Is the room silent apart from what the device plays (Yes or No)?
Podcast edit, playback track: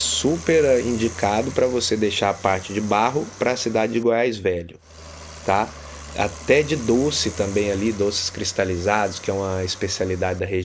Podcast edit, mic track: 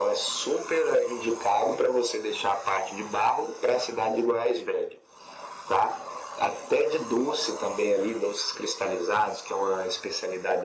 Yes